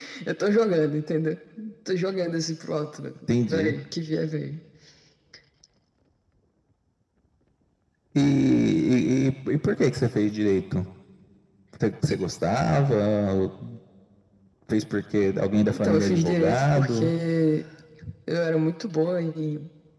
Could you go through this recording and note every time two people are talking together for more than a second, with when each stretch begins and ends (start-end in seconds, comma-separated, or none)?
15.8-17.1